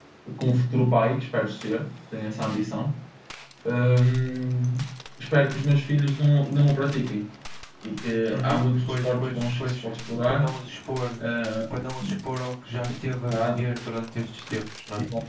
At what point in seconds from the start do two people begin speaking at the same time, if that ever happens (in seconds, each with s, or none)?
8.3 s